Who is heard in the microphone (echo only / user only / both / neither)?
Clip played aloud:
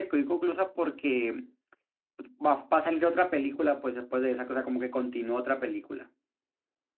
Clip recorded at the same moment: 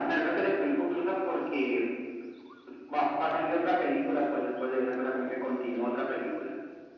echo only